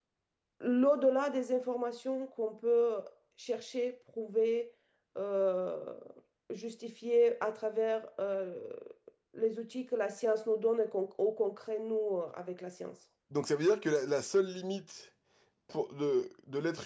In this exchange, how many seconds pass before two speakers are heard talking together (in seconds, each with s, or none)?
none